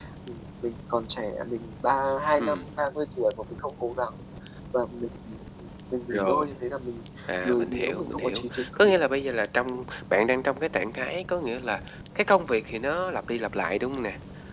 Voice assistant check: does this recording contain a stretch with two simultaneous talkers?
Yes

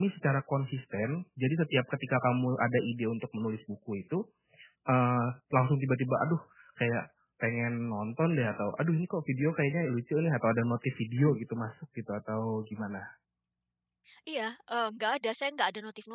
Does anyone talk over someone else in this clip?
No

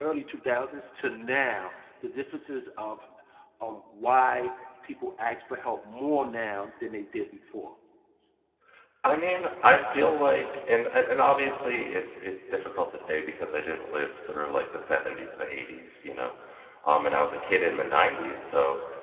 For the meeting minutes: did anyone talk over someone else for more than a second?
No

